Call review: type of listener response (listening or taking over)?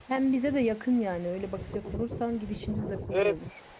taking over